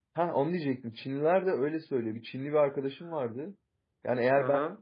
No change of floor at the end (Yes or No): Yes